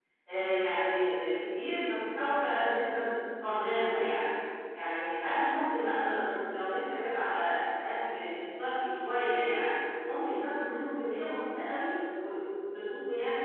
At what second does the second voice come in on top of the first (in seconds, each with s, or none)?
none